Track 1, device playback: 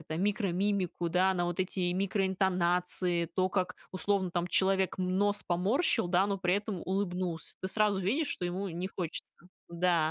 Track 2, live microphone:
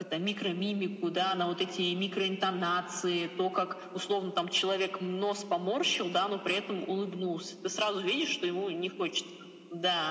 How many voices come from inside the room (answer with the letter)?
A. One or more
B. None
B